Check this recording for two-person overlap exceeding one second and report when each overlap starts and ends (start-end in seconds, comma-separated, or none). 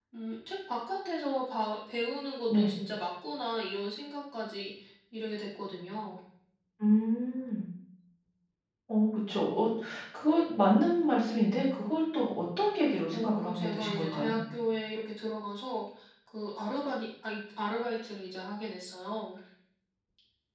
13.1-14.3